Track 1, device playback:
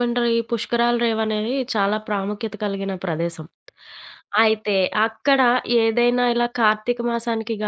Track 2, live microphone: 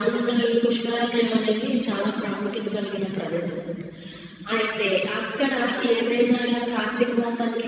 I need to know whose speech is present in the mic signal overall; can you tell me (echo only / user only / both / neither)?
echo only